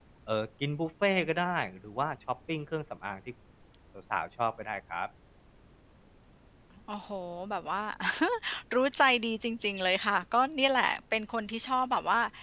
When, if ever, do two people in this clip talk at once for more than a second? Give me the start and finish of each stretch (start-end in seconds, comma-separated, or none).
none